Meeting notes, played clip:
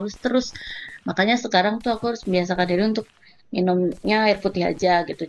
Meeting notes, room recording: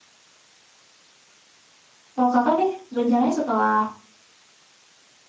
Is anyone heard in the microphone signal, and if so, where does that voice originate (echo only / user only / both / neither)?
user only